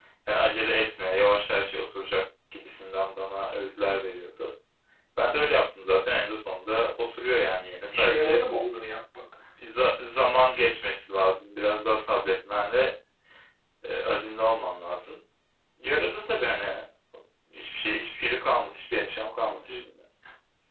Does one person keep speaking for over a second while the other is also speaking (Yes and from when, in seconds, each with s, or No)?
No